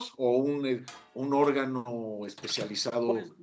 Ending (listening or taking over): taking over